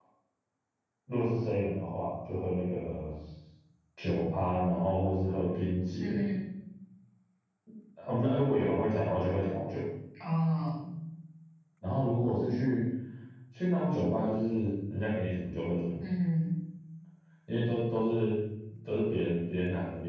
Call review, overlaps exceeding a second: none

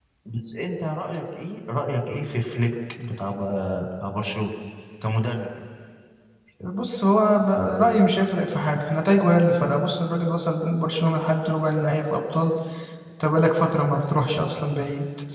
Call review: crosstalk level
none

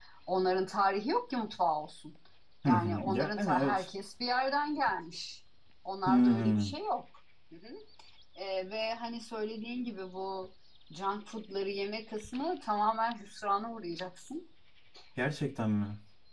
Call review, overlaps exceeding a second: present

